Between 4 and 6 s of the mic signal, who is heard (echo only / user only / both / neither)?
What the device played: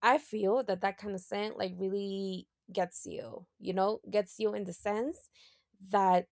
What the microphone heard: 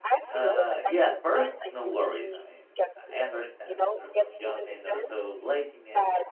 both